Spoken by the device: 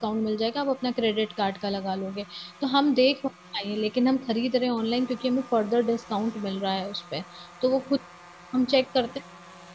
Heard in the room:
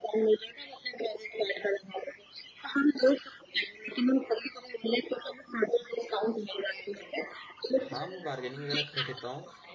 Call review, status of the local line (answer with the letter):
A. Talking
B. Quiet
A